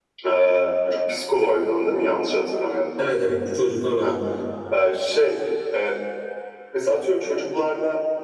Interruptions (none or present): none